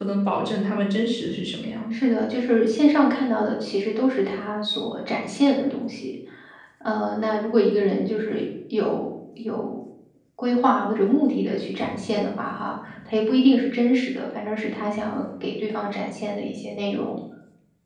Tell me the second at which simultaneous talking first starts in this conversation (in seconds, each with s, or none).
none